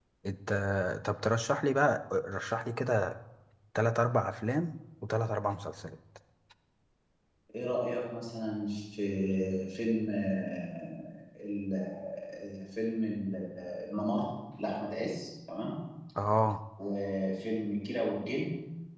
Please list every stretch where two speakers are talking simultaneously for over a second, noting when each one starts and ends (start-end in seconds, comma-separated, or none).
none